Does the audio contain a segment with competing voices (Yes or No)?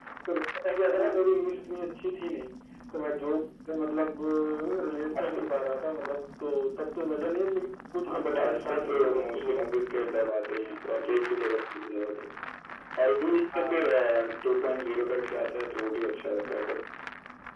Yes